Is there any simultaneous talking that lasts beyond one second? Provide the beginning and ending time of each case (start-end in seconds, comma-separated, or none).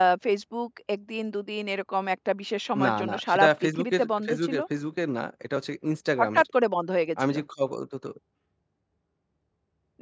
2.8-4.6